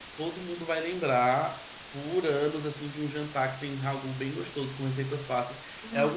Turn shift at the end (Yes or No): Yes